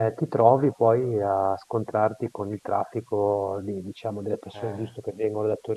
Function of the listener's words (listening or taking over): listening